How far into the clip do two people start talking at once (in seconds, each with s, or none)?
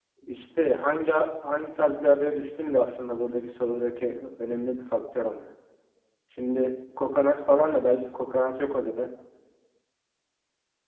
none